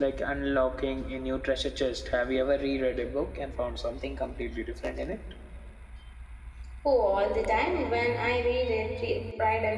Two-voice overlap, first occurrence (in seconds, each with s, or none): none